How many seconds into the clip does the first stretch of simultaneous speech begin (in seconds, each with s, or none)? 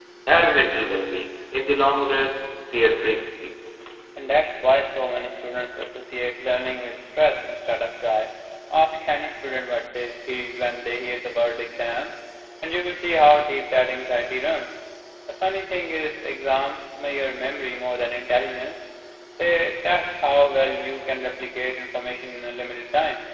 none